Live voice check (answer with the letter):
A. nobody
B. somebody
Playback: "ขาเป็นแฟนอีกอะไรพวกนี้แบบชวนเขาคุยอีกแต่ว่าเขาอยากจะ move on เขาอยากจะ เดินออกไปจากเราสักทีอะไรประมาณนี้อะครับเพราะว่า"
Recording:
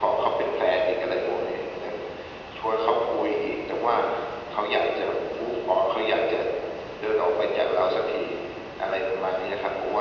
A